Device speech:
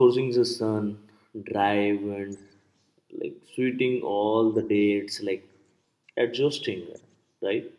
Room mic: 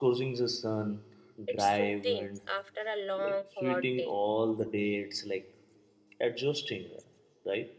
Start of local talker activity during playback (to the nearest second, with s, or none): 1 s